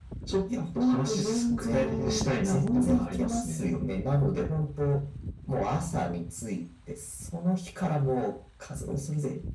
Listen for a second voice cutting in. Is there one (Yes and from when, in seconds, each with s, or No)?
Yes, from 0.8 s